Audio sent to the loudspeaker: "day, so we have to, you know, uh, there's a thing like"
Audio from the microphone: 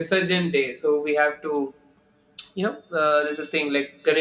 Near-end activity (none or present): none